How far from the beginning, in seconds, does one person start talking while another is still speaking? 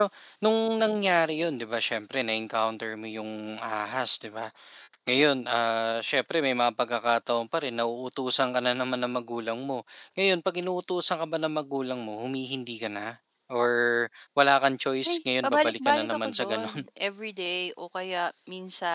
15.1 s

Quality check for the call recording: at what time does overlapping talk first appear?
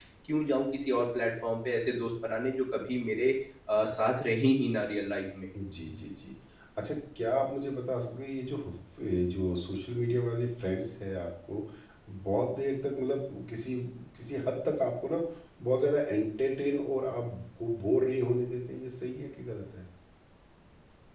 none

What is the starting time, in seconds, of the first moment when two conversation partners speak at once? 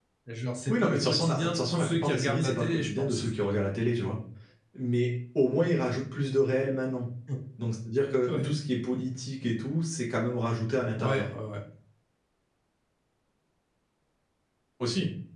0.7 s

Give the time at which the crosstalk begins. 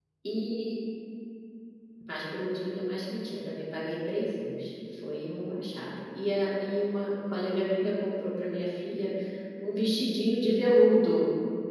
none

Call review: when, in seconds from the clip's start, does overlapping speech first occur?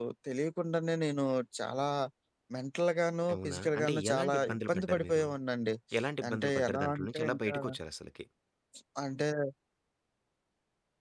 3.3 s

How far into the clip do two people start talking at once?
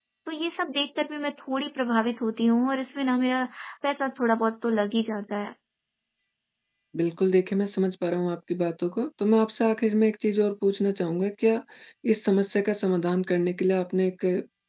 none

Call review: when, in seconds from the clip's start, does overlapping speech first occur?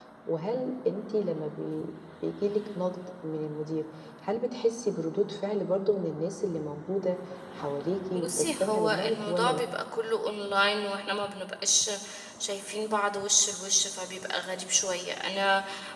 8.1 s

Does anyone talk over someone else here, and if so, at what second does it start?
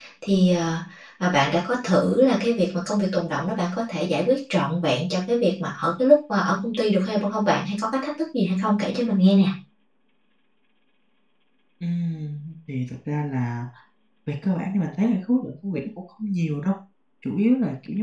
none

